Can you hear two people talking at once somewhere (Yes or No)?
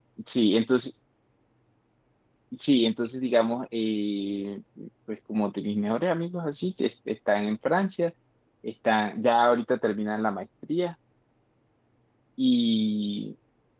No